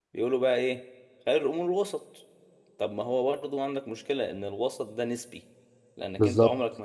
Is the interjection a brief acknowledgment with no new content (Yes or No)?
Yes